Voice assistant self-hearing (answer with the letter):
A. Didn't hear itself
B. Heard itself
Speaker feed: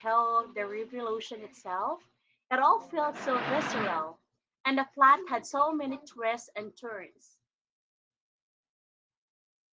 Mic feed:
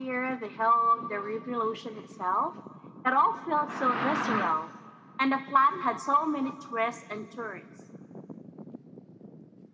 B